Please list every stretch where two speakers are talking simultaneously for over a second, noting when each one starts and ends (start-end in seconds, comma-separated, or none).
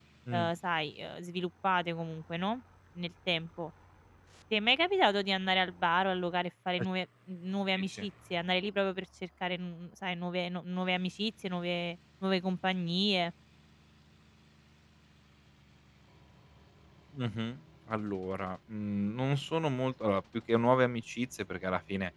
none